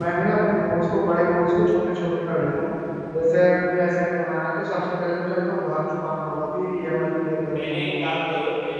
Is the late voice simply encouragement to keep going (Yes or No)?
No